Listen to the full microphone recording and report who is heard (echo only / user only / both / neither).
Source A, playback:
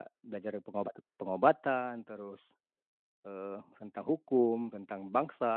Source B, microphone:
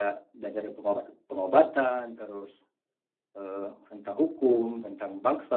echo only